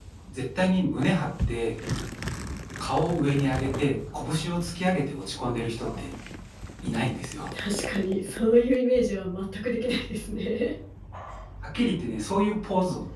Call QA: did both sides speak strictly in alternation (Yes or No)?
Yes